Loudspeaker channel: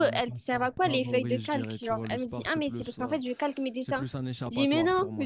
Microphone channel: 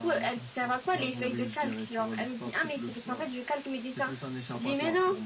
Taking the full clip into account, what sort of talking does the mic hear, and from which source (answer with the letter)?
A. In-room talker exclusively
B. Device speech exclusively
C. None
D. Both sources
B